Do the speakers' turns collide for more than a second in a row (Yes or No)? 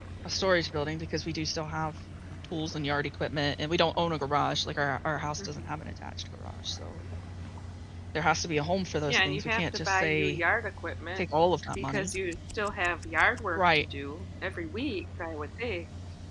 Yes